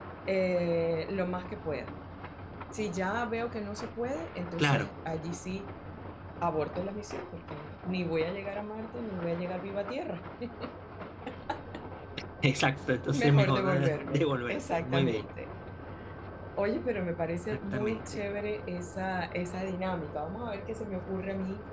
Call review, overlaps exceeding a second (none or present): present